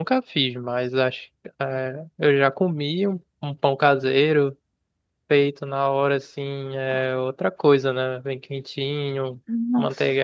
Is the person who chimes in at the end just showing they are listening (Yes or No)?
Yes